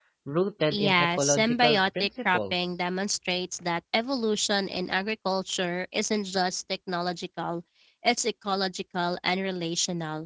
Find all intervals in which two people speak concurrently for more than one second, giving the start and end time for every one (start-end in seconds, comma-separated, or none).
0.7-2.5